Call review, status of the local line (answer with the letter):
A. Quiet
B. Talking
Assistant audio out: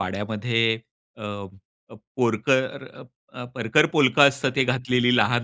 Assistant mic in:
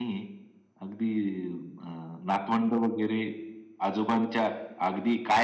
B